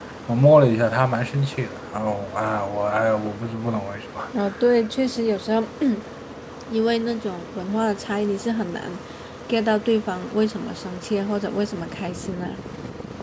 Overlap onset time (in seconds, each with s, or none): none